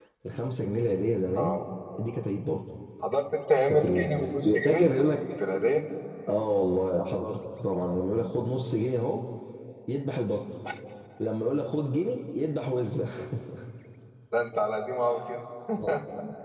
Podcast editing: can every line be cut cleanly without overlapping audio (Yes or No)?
No